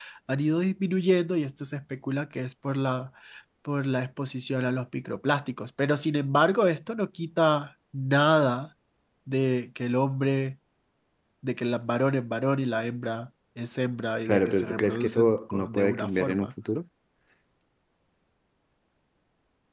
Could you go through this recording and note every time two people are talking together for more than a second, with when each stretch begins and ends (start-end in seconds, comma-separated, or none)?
14.3-16.5